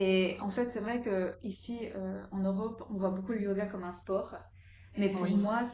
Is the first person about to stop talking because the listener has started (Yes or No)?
No